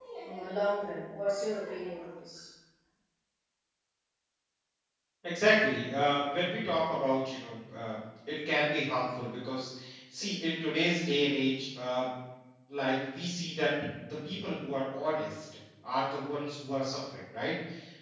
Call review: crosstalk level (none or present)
none